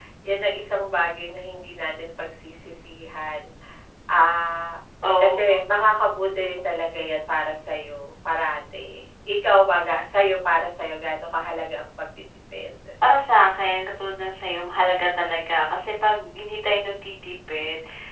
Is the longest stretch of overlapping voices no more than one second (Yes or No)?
Yes